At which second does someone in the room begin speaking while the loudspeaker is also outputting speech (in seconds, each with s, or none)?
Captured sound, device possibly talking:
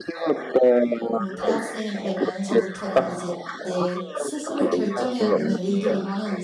1.1 s